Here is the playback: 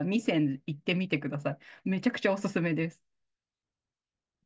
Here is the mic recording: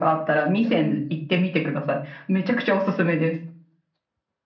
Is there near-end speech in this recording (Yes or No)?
Yes